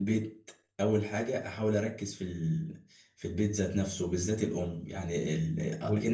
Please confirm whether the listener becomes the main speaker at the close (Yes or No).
No